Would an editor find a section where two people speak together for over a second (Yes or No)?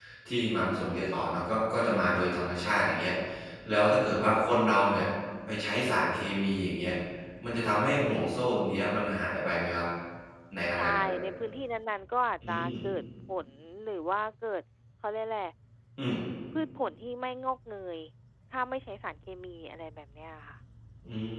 No